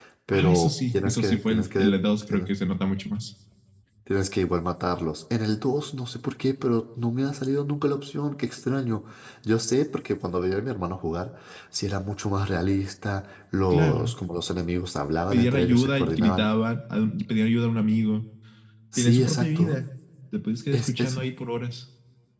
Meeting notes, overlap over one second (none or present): present